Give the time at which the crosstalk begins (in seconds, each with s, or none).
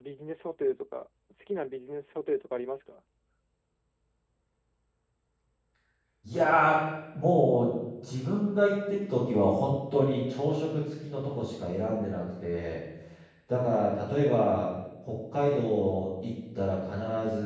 none